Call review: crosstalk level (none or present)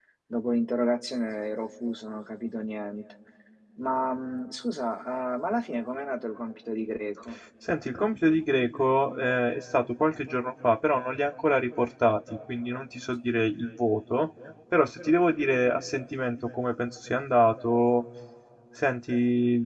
none